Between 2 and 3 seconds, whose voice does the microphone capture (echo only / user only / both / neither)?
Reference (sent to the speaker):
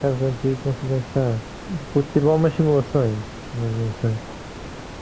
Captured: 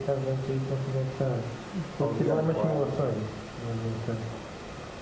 both